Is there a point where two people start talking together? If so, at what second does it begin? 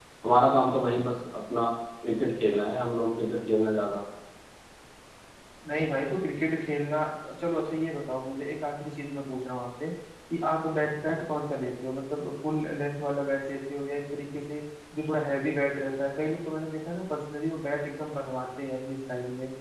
none

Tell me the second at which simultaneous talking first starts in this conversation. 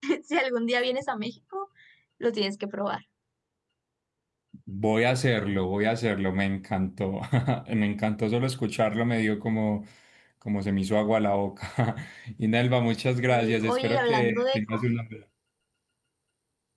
13.3 s

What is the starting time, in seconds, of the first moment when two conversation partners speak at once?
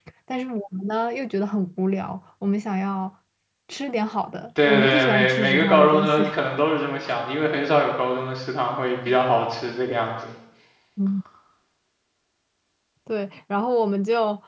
4.6 s

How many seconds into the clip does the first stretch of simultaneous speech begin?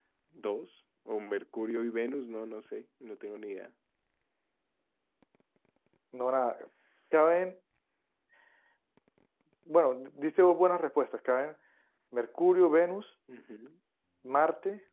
none

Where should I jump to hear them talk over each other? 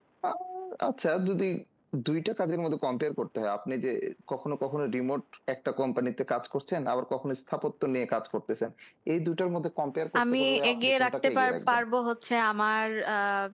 10.2 s

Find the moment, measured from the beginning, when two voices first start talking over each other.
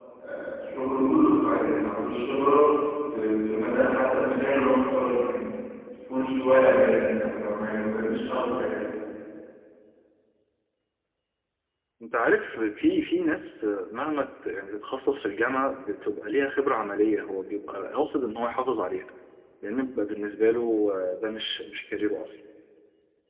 none

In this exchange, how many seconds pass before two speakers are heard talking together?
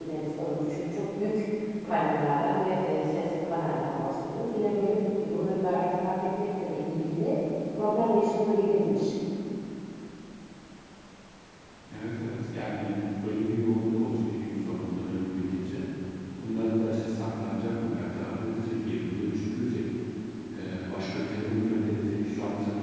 none

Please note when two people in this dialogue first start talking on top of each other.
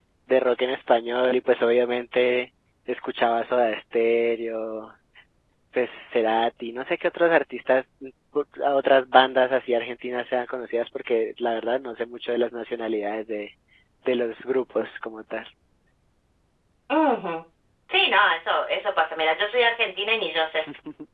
none

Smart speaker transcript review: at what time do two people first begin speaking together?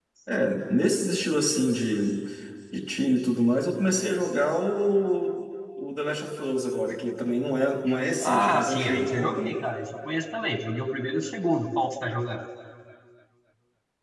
8.2 s

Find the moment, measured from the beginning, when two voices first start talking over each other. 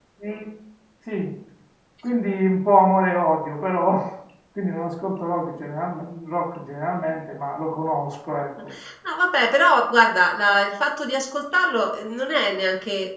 none

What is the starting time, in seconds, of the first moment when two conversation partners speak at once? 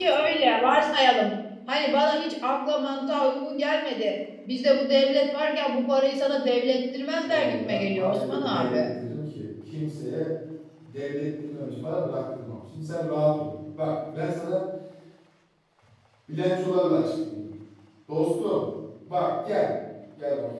7.3 s

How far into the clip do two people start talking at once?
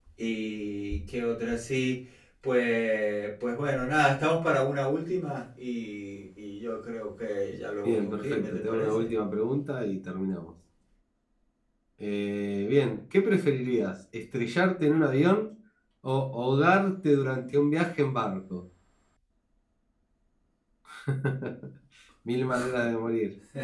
7.8 s

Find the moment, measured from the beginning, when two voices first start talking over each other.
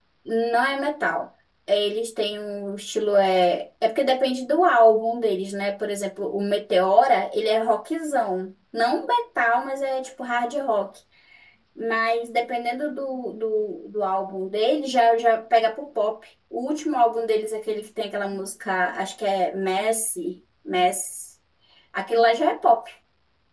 none

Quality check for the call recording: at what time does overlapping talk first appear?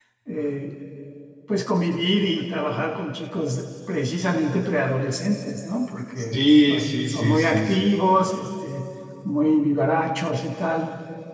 6.2 s

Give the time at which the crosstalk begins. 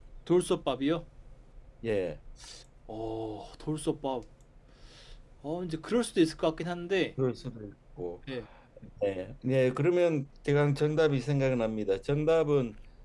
none

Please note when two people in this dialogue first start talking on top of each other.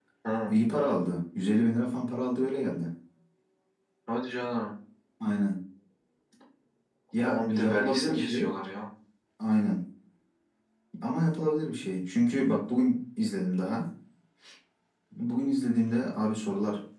7.2 s

